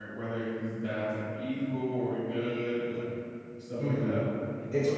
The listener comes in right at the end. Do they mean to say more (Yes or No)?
Yes